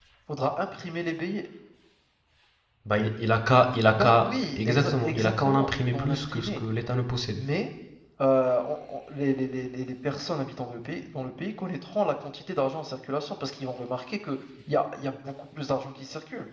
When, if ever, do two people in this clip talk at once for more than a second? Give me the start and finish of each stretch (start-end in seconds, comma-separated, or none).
3.9-6.6